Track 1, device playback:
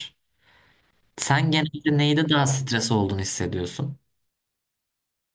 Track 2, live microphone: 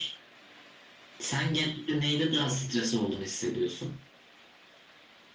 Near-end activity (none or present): none